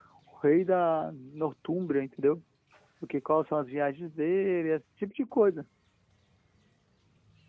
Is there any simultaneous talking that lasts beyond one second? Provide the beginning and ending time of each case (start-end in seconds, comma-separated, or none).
none